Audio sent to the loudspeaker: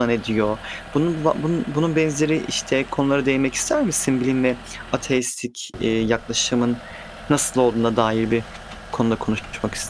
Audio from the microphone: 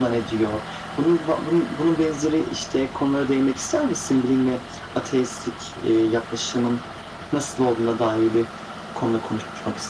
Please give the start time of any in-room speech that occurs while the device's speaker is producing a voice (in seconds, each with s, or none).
none